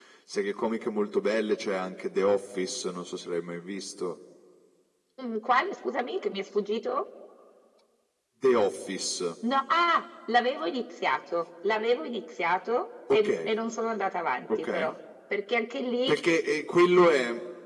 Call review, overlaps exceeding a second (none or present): none